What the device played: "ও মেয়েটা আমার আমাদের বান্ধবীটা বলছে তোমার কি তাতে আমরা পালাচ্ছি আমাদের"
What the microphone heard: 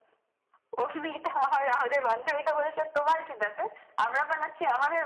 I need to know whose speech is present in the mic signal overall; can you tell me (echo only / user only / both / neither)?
echo only